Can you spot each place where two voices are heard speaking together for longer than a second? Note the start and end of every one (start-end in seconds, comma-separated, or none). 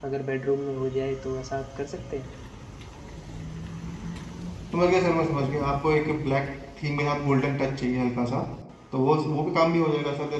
none